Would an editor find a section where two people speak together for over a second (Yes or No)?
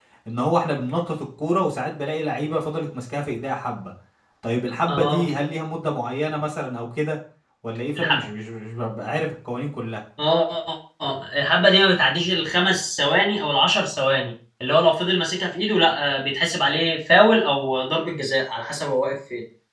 No